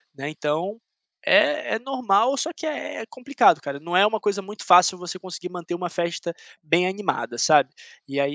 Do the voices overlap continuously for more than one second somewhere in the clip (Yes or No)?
No